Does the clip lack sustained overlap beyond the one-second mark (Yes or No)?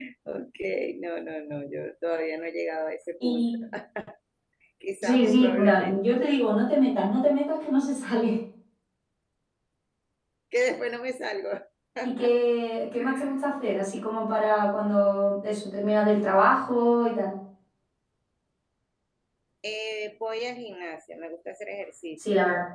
No